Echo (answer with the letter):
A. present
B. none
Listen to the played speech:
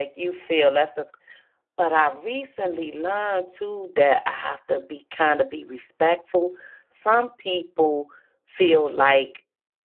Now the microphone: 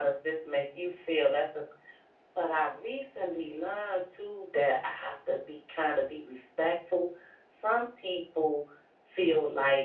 A